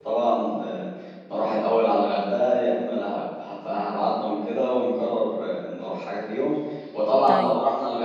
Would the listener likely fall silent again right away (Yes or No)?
Yes